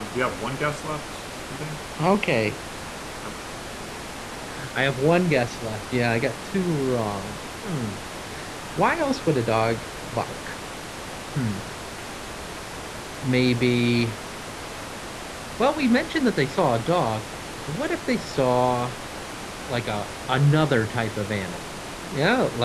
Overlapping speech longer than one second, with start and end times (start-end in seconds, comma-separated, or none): none